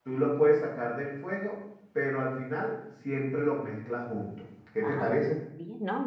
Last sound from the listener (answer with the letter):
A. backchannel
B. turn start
B